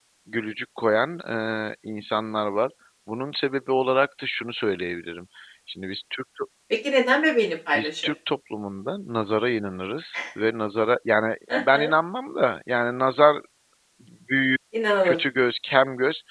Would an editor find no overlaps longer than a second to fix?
Yes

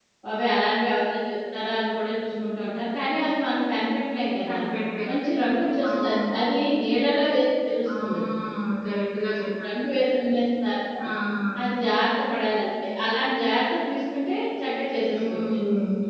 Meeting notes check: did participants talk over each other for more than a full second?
No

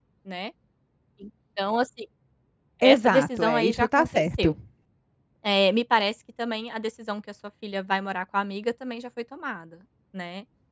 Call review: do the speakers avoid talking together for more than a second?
No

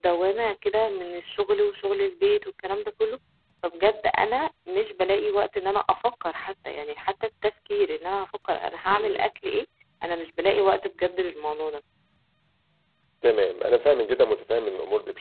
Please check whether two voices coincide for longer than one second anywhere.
No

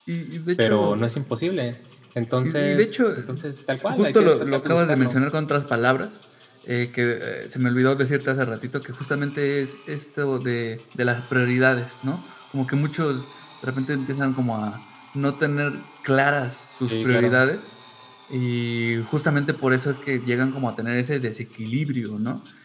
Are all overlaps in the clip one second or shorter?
No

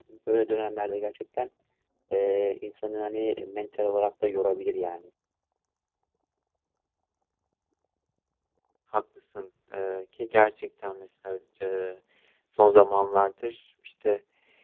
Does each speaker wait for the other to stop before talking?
Yes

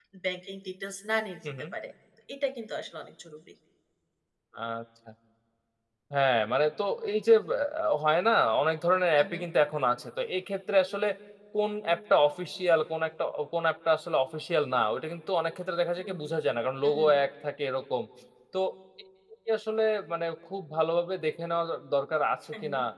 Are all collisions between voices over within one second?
Yes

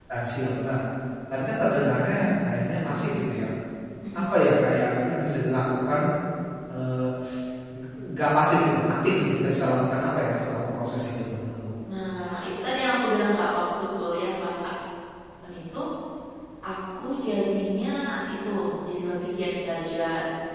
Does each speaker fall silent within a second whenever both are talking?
Yes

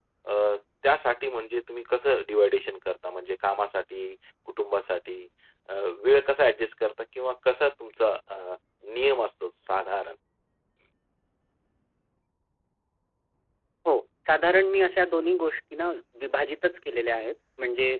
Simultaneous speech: No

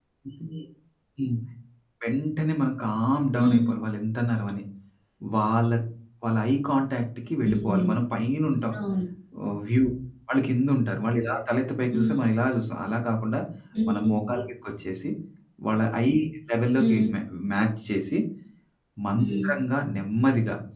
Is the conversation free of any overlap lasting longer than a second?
Yes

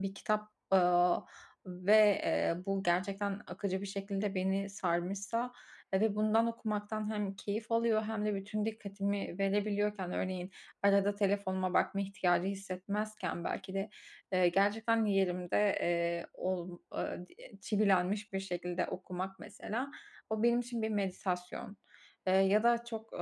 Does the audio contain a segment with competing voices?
No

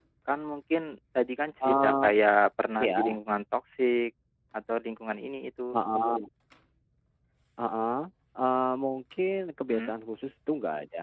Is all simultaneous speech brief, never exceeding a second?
Yes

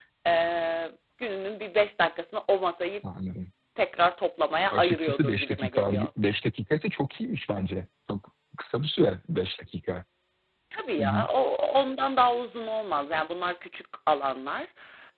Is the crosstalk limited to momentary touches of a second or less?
No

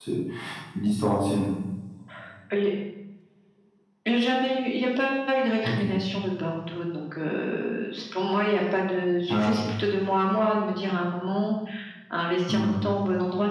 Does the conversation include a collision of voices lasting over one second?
No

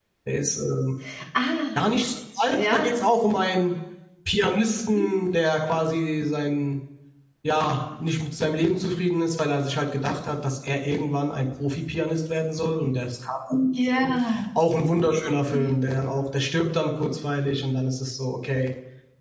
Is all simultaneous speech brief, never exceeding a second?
Yes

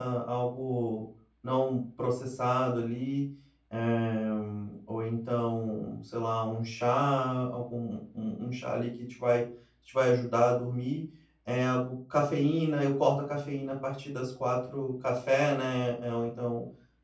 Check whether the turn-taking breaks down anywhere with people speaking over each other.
No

